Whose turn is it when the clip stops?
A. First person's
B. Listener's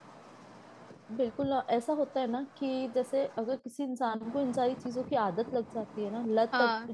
A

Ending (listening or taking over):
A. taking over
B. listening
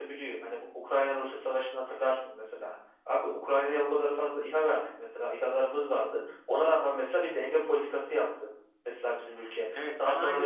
A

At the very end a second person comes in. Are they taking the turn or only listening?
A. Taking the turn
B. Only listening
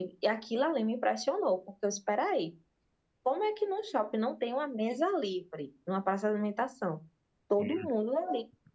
B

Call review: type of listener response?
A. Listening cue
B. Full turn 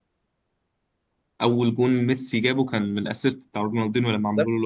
B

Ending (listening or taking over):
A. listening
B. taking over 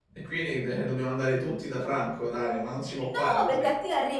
B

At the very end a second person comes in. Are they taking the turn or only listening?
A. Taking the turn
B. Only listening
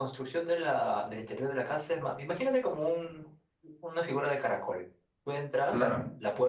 B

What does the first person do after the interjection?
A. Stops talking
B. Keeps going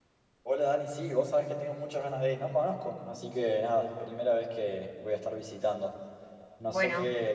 B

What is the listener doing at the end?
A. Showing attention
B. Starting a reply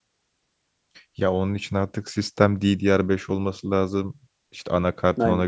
A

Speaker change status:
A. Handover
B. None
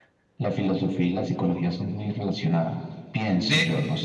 A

